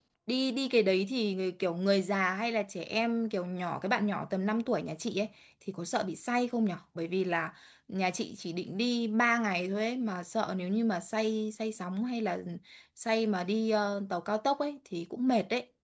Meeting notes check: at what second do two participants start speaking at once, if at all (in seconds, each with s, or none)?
none